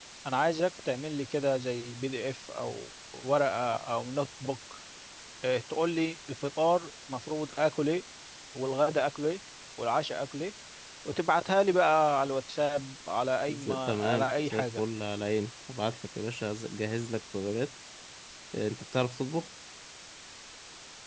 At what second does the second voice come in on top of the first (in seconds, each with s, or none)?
13.5 s